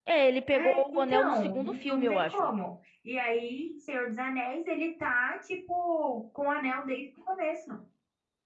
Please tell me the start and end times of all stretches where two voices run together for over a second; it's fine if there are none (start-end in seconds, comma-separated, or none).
0.6-2.5